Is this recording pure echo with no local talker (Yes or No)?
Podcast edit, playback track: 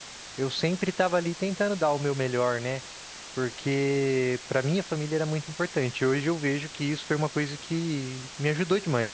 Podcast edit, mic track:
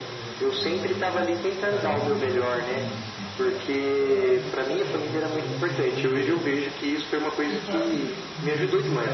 No